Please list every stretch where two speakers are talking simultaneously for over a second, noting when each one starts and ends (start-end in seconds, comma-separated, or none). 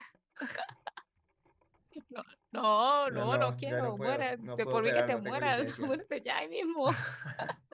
3.1-6.0